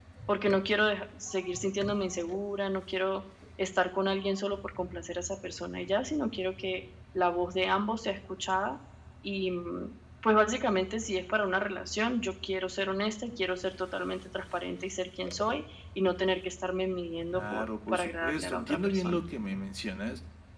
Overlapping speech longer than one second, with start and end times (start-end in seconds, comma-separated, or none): 17.3-19.2